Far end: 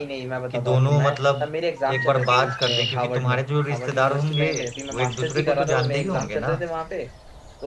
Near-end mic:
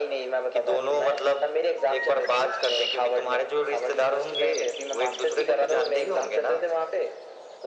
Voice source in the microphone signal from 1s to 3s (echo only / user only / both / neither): echo only